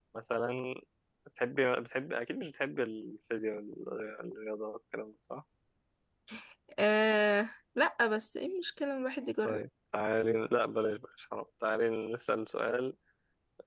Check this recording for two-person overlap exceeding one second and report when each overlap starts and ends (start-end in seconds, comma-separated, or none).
none